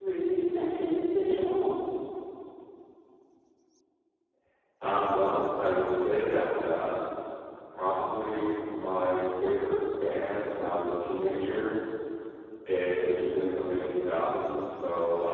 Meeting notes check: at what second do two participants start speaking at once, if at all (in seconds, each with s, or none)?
none